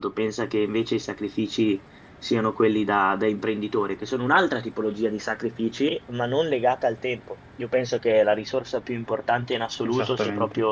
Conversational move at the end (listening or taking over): listening